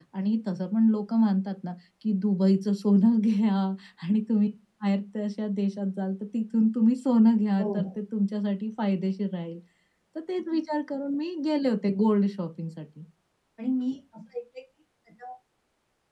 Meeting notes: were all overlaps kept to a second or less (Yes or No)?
Yes